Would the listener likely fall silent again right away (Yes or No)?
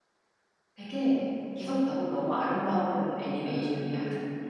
No